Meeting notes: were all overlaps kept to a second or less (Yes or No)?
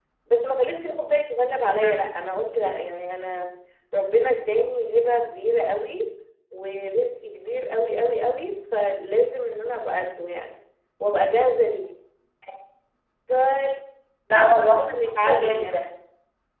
No